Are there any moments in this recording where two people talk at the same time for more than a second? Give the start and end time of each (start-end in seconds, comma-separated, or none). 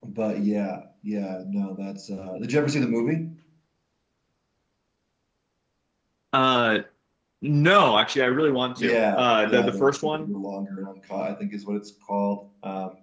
8.8-10.3